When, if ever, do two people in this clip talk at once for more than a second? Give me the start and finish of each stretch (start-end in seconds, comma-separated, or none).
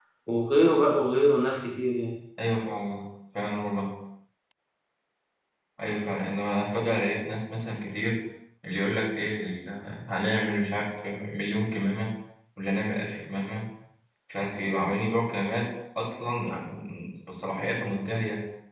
none